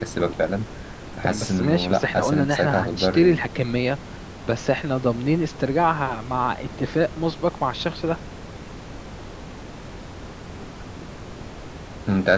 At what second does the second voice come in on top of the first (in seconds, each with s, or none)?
1.2 s